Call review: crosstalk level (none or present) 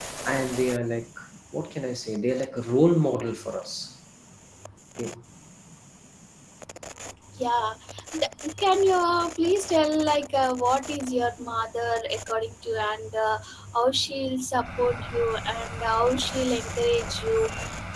none